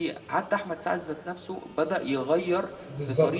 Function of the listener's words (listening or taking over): taking over